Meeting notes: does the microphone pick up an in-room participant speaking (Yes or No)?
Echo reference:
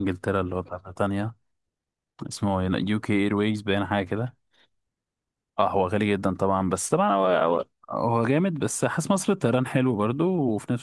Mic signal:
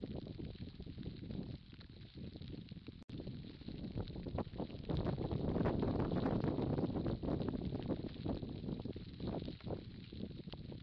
No